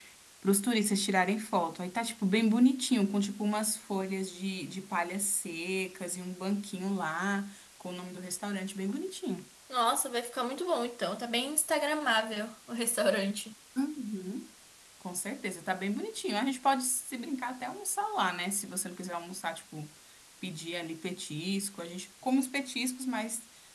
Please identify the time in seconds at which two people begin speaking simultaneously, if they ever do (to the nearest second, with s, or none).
none